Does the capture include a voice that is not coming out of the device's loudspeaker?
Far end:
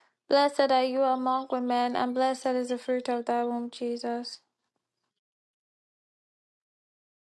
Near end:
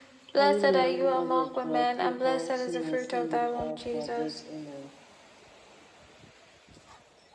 Yes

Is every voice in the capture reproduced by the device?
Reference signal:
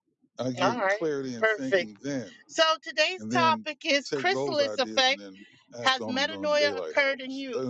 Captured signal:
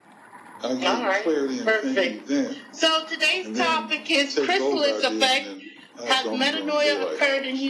Yes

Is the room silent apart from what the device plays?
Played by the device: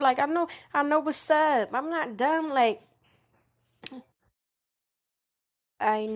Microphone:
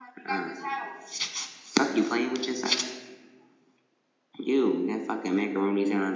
No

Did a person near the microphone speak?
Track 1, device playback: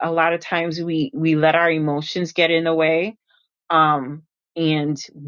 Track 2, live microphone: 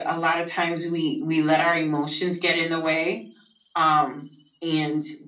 No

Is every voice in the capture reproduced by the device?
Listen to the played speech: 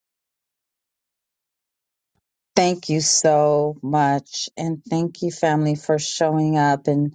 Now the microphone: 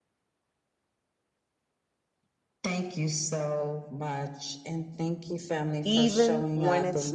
No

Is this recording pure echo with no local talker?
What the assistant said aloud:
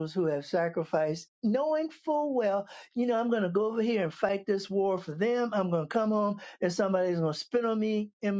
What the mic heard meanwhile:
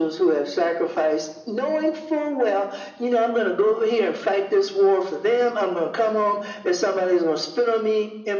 Yes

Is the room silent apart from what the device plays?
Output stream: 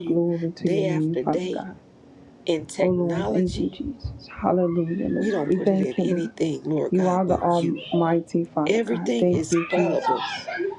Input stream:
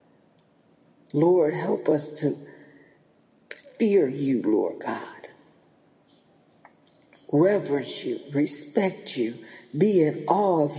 No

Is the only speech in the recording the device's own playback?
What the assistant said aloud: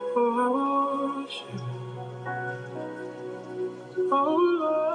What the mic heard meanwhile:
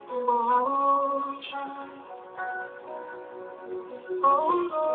No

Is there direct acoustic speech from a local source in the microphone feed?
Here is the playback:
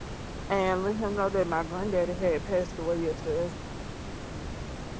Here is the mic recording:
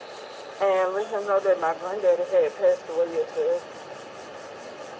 No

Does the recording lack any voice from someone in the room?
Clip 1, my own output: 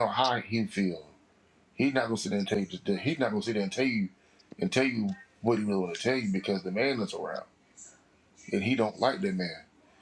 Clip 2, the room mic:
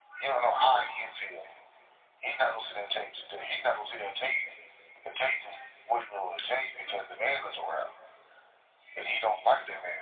Yes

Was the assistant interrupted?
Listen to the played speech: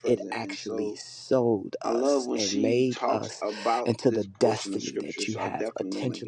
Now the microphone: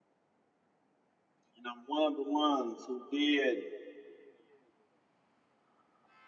Yes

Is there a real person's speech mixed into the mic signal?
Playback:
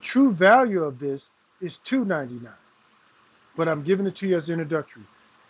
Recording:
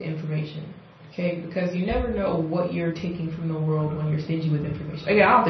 Yes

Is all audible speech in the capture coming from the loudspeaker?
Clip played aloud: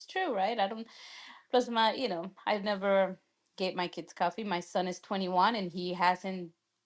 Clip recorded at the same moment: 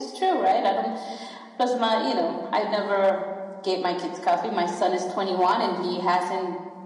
Yes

